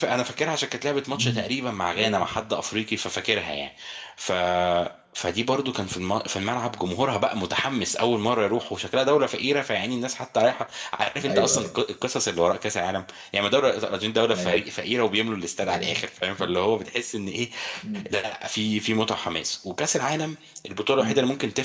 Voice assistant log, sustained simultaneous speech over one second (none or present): none